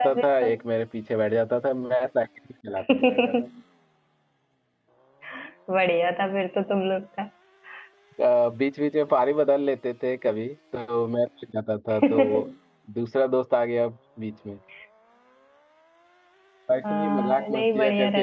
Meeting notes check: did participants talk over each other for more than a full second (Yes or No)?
Yes